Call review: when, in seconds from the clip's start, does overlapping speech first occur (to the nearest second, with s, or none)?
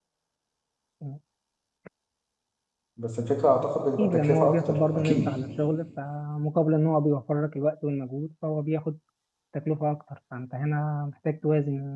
4 s